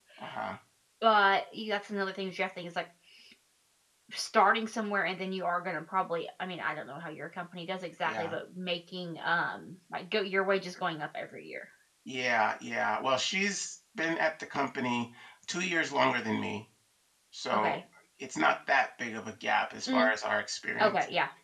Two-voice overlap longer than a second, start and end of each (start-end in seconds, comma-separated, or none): none